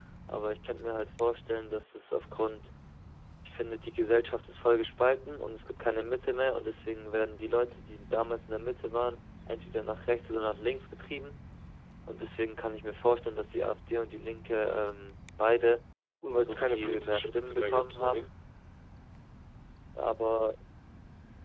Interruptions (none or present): present